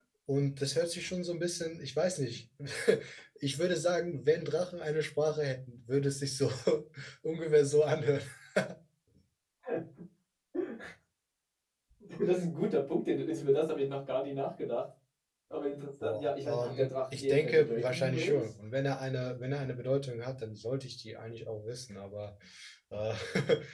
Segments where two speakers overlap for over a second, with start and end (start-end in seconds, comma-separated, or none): 16.0-18.4